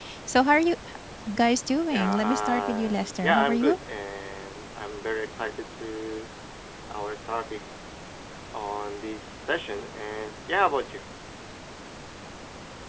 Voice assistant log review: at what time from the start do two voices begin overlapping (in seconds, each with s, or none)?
1.9 s